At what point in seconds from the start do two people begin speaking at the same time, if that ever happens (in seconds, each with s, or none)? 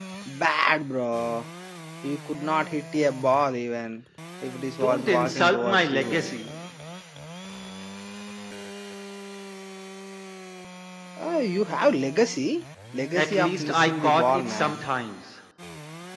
4.8 s